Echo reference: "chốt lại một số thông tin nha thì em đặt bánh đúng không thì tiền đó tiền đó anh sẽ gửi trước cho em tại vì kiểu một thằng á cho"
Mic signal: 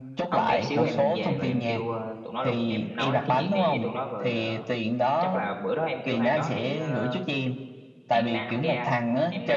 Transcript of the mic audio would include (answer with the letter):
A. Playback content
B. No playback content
A